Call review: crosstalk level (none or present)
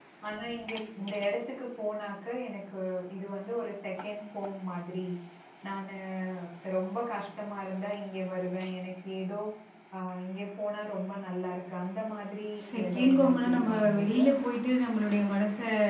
present